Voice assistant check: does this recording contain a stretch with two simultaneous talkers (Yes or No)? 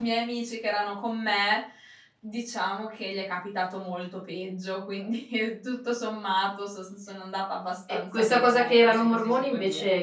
Yes